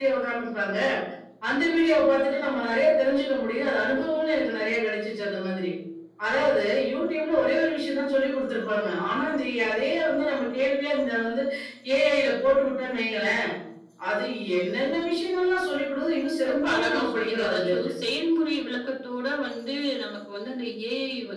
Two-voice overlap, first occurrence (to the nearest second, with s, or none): 16 s